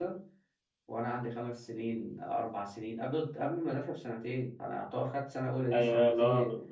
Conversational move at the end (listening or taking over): taking over